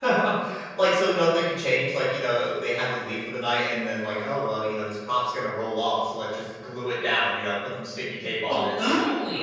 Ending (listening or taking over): taking over